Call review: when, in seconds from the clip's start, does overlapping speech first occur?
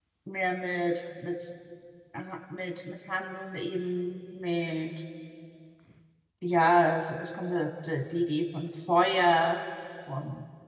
none

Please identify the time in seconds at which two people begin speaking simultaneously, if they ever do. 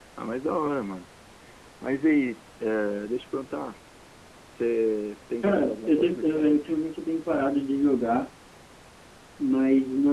5.4 s

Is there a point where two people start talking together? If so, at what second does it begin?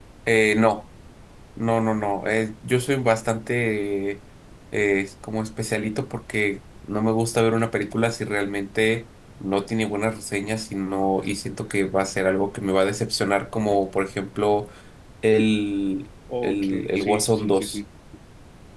16.3 s

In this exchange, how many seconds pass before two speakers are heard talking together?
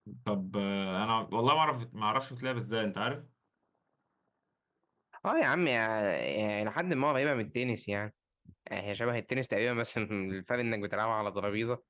none

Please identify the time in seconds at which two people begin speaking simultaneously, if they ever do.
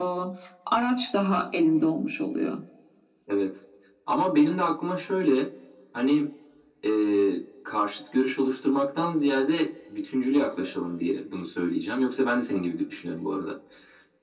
none

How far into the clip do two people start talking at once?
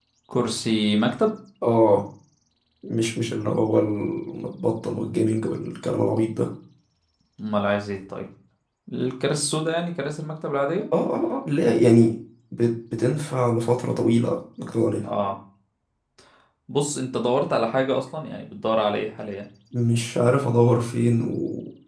none

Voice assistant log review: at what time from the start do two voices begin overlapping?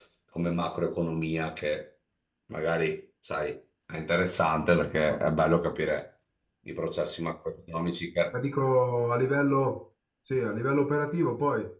none

